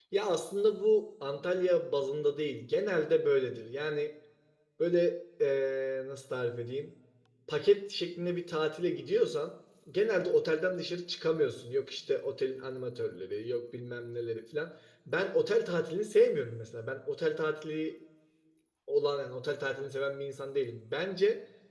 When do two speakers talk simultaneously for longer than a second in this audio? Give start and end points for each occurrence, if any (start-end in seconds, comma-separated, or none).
none